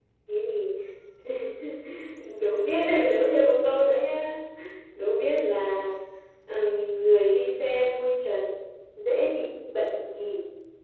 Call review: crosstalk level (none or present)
present